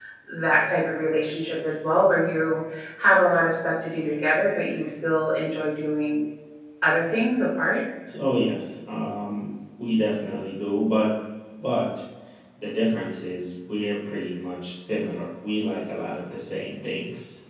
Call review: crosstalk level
none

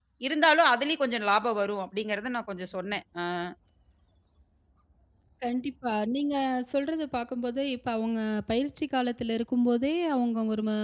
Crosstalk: none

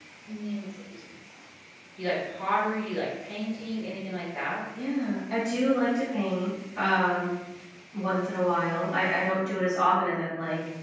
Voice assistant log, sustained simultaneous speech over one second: none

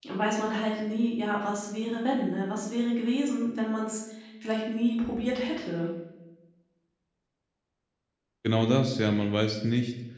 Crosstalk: none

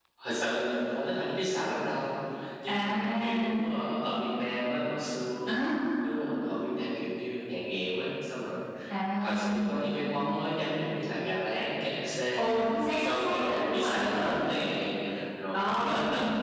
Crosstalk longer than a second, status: present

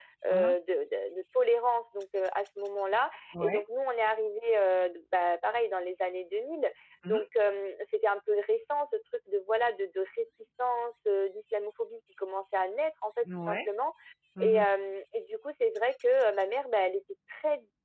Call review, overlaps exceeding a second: none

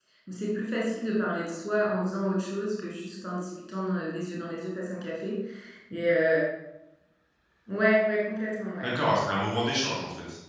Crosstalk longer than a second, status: none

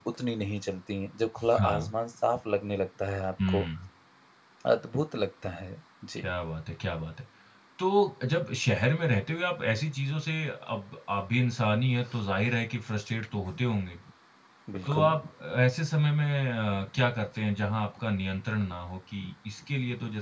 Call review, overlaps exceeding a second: none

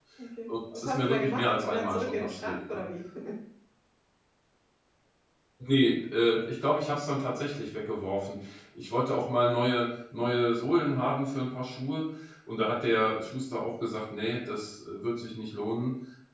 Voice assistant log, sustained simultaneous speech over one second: present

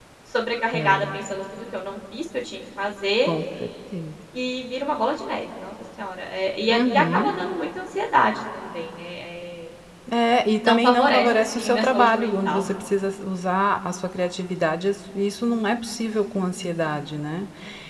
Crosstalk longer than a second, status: present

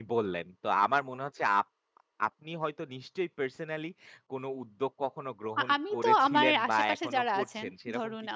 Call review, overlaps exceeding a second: present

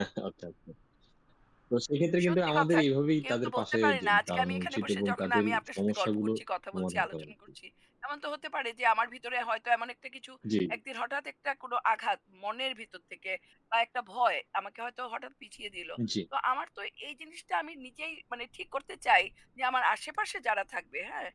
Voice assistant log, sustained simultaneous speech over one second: present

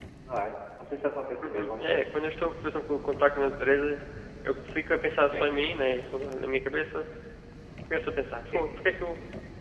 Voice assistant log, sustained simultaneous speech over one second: none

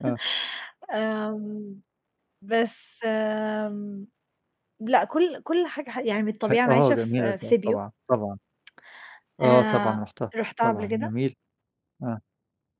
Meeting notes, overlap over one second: present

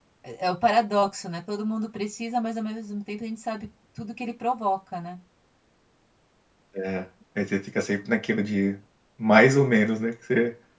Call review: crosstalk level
none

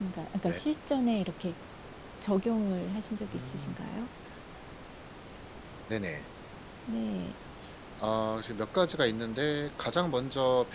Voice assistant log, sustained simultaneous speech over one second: none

